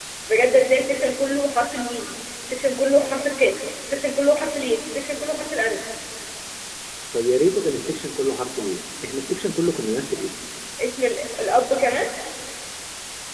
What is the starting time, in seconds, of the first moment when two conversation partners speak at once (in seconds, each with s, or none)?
none